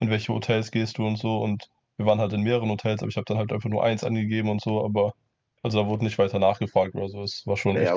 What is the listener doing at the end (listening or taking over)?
taking over